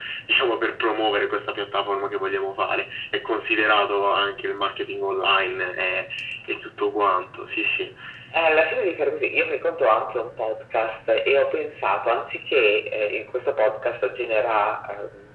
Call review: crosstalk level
none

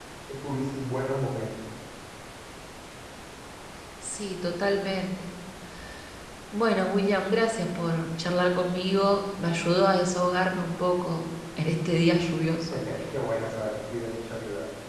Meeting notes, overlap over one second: none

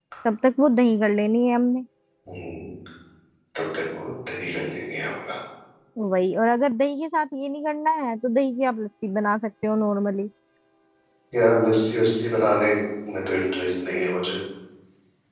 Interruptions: none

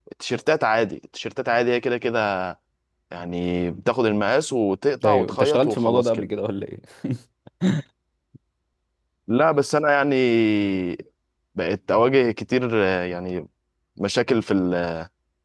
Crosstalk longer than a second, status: present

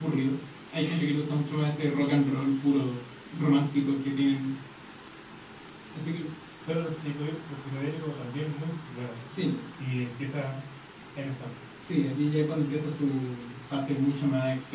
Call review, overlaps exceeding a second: none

